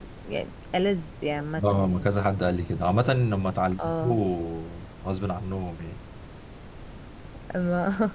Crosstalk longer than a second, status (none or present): none